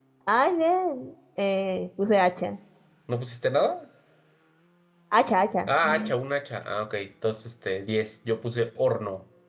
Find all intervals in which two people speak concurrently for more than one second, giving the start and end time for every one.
none

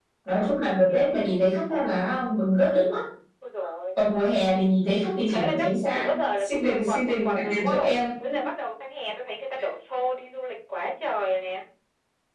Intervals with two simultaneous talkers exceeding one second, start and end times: 5.3-8.0

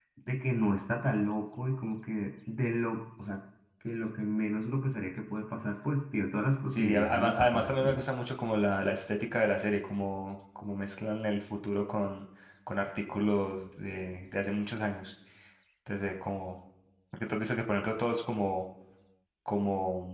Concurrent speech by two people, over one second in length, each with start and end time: 6.7-8.0

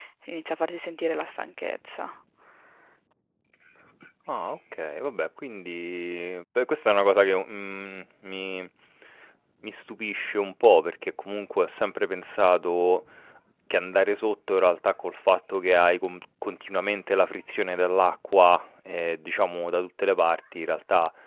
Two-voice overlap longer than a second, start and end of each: none

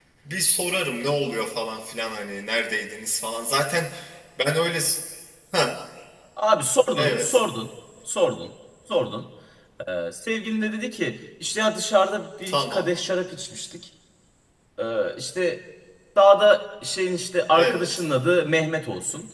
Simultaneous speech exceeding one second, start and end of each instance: none

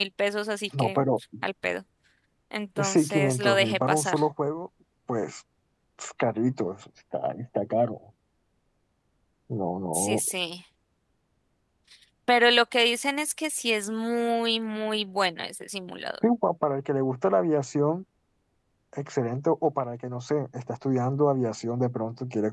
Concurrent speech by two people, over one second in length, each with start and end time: 2.8-4.2

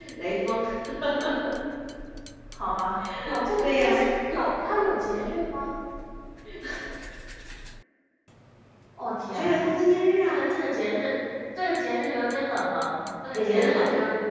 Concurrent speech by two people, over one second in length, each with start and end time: none

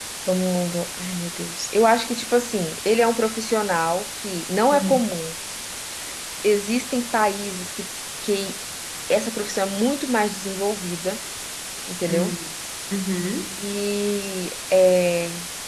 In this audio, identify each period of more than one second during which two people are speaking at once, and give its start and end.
none

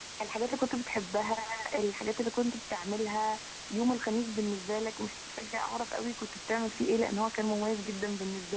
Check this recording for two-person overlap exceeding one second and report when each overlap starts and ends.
none

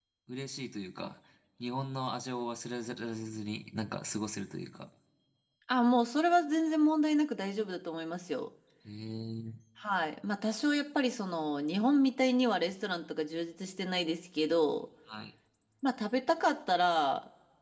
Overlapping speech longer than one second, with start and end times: none

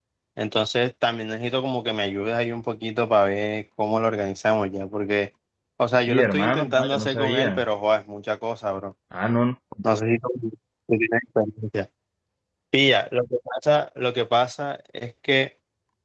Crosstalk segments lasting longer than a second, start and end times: 5.9-7.7

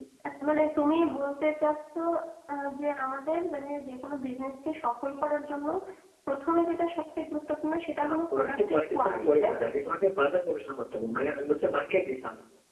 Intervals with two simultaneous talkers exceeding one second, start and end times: 8.0-9.6

